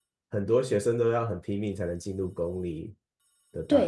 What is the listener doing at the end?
taking over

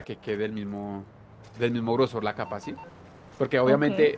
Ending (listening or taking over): listening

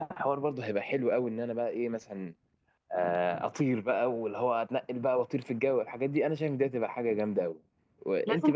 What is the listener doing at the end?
taking over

